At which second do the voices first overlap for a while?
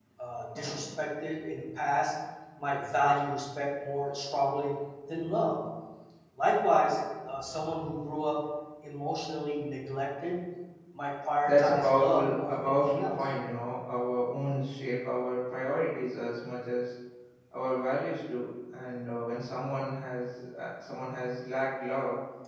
11.4 s

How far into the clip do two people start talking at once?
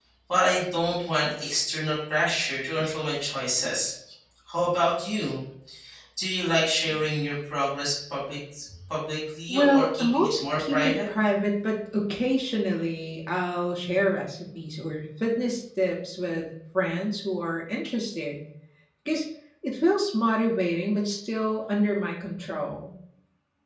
9.5 s

